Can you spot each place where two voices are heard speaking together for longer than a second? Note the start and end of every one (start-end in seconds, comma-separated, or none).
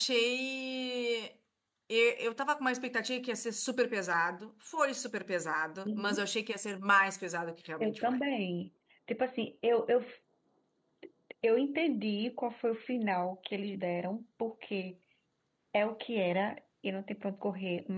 none